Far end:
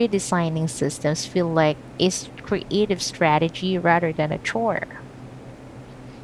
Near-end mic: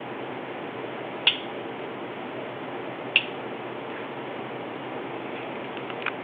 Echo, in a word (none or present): none